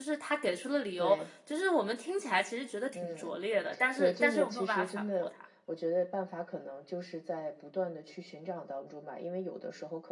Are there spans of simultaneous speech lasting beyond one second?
Yes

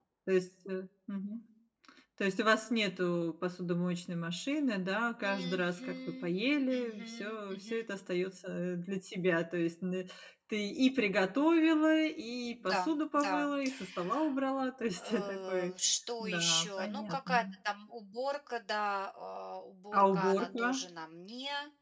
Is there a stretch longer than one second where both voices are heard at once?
Yes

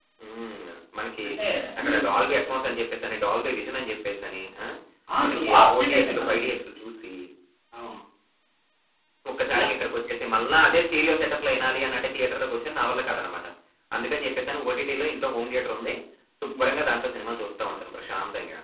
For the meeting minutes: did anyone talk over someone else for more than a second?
Yes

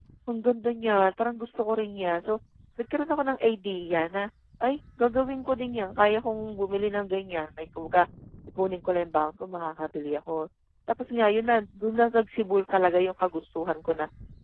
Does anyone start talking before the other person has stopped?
No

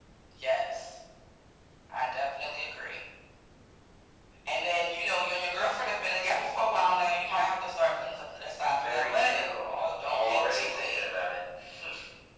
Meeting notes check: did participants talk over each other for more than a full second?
Yes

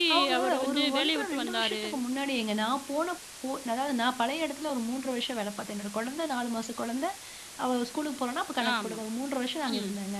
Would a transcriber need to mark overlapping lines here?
Yes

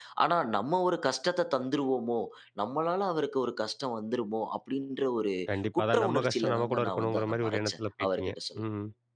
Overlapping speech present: Yes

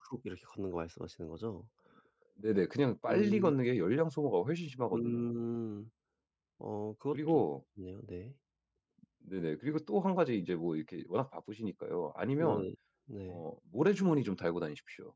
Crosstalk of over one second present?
No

